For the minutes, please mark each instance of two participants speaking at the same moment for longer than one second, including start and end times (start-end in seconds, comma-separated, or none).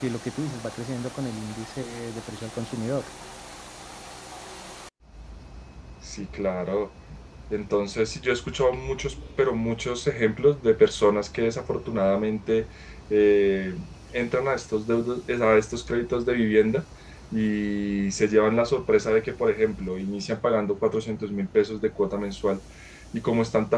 none